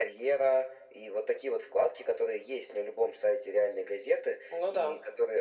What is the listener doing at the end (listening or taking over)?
listening